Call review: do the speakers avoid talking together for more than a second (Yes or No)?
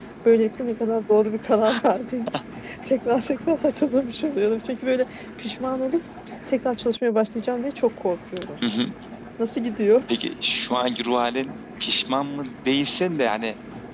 Yes